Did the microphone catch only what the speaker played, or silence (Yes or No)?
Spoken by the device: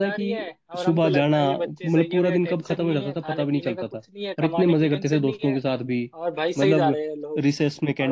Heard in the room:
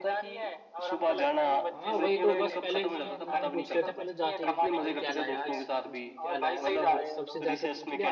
No